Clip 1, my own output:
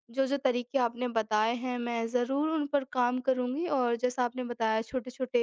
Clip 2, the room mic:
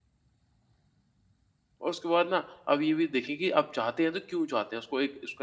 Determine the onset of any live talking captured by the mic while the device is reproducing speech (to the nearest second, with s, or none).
2 s